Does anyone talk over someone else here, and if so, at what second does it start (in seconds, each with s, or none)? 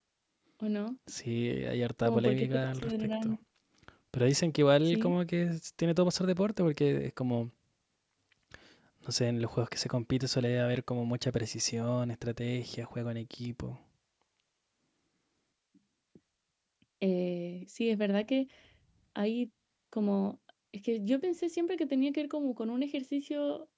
2.0 s